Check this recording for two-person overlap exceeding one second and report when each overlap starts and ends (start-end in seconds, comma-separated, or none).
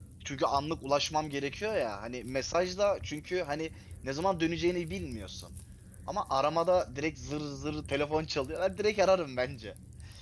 none